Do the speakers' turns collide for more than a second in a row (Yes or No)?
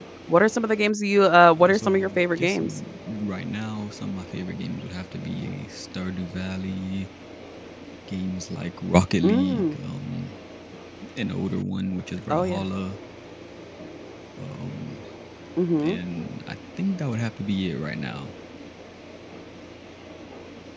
Yes